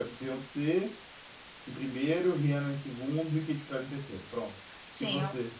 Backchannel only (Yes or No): No